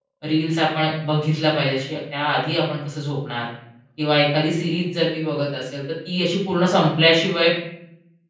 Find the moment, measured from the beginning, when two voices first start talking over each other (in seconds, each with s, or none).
none